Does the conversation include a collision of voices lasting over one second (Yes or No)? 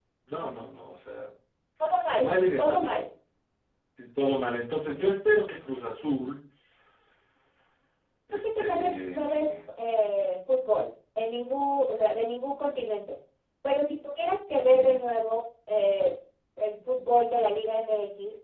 Yes